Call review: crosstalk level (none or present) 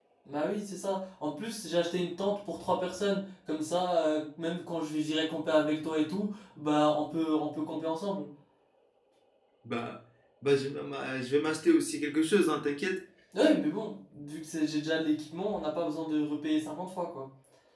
none